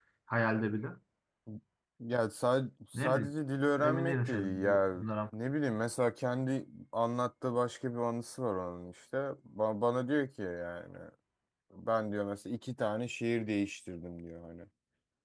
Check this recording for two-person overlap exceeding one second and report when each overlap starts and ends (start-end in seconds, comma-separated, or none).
3.8-5.0